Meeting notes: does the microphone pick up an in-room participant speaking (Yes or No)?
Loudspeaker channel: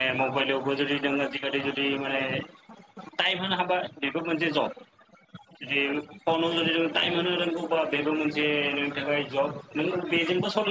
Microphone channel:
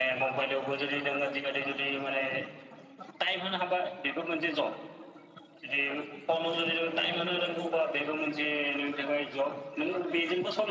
No